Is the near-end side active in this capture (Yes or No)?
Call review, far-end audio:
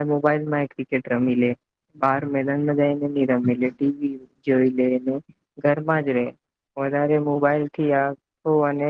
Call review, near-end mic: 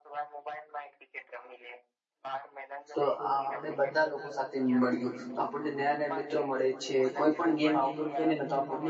Yes